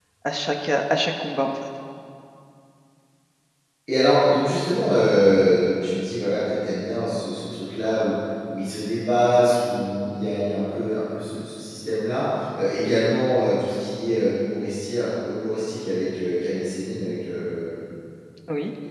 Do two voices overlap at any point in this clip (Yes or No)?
No